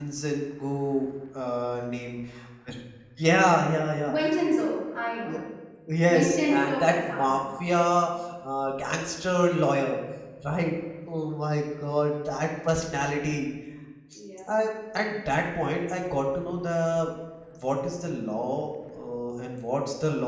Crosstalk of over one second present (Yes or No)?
Yes